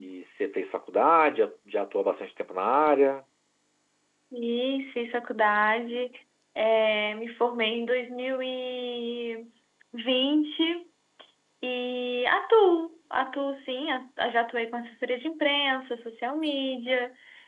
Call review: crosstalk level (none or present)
none